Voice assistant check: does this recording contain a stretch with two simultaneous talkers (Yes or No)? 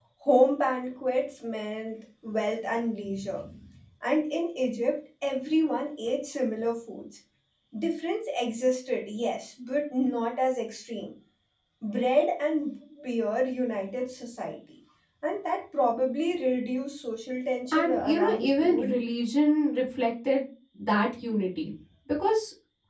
Yes